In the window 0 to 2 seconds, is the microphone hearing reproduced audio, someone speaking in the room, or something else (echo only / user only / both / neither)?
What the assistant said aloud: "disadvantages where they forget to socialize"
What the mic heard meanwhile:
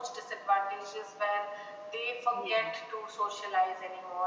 echo only